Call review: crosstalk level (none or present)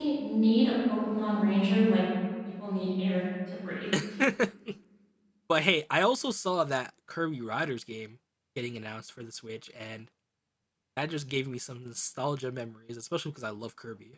none